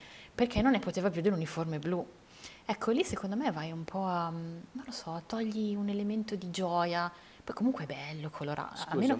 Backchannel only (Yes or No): No